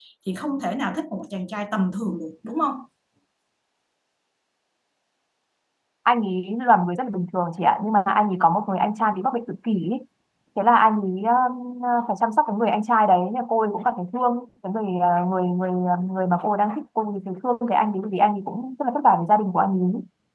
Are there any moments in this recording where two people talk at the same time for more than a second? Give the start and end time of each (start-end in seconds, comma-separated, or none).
none